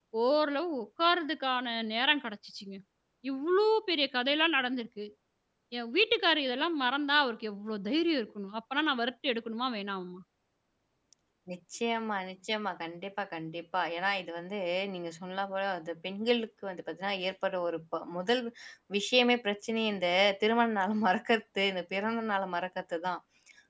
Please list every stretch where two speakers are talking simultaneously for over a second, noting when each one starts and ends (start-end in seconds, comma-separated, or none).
none